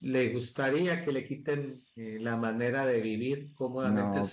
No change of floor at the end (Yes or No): Yes